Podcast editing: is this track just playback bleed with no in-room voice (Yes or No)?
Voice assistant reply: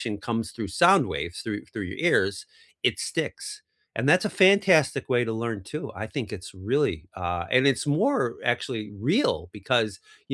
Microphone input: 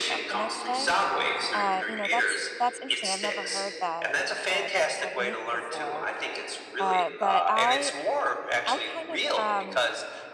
No